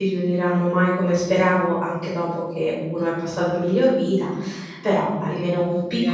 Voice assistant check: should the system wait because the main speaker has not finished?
No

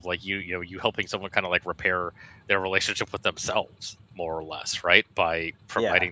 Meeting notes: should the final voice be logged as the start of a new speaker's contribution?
No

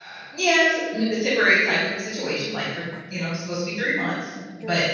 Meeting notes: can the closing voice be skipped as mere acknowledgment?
Yes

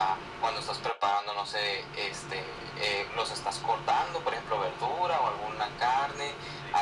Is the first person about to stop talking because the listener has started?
No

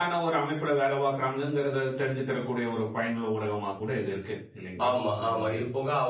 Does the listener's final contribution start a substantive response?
Yes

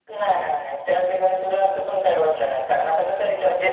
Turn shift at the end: No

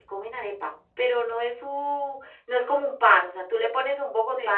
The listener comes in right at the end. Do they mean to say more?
No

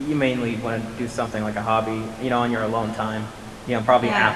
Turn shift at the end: No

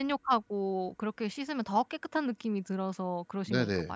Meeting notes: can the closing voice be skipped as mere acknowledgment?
No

